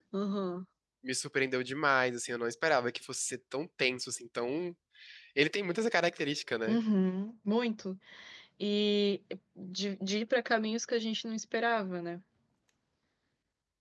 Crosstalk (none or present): none